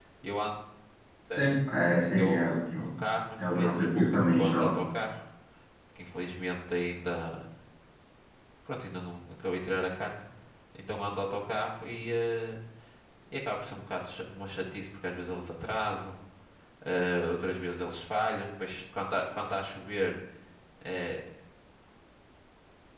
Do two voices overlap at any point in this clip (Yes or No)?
Yes